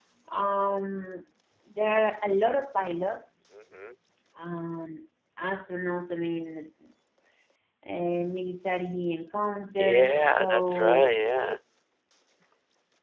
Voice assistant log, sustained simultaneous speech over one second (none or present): present